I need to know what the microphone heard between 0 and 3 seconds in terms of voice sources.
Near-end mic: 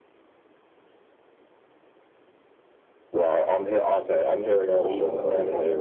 neither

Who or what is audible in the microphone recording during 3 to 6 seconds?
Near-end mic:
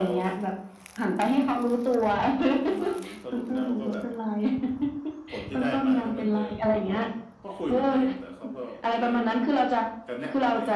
echo only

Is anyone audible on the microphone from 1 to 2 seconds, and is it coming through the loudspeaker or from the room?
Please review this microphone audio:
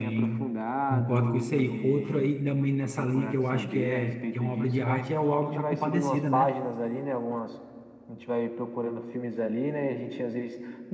both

